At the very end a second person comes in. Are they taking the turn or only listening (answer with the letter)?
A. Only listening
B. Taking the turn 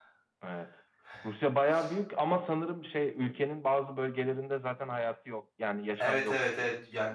B